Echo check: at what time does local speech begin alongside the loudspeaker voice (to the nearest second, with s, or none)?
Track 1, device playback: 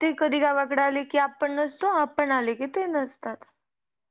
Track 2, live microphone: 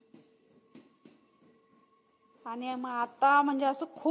2 s